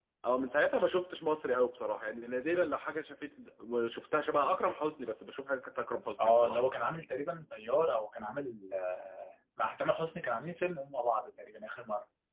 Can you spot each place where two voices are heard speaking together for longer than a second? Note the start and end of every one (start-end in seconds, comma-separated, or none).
none